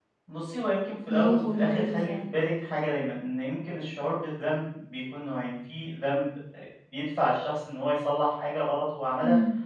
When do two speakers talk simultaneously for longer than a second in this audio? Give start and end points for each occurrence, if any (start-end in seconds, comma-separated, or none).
1.1-2.3